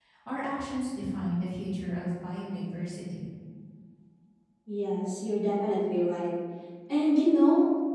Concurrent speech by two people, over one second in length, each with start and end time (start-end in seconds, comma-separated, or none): none